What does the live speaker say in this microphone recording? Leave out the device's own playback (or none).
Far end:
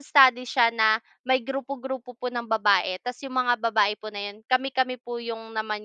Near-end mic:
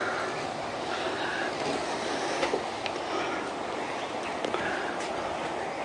none